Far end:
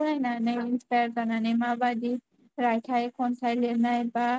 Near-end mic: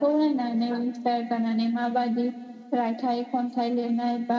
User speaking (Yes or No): No